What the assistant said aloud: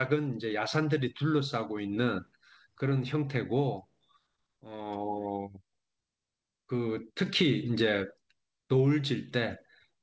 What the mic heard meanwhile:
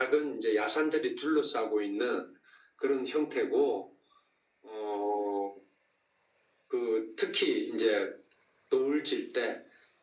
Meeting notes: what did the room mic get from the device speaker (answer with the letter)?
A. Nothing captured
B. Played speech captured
B